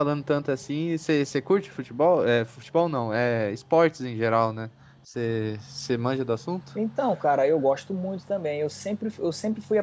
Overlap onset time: none

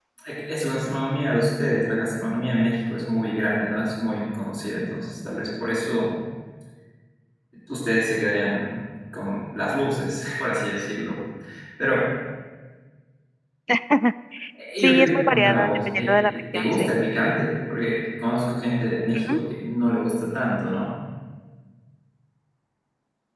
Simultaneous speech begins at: 15 s

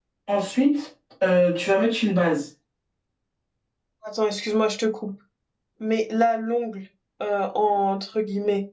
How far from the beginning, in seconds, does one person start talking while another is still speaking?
none

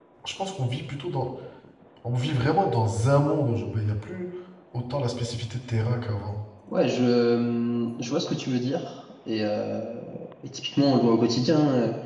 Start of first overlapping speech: none

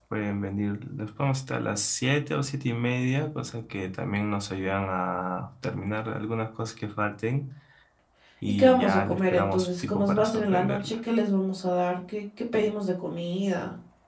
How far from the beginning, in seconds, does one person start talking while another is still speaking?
9 s

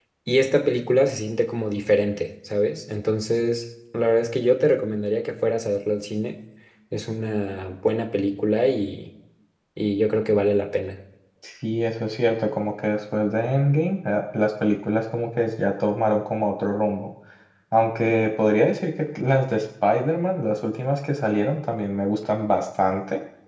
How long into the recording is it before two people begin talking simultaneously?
none

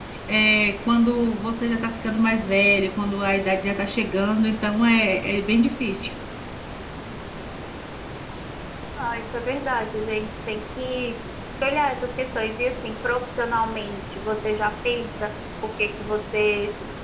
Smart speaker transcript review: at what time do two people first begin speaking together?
none

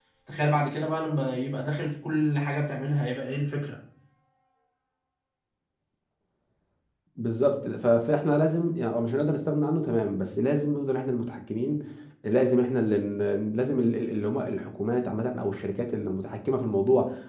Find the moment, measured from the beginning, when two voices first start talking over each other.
none

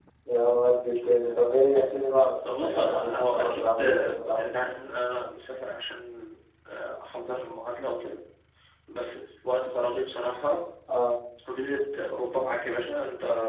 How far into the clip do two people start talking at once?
2 s

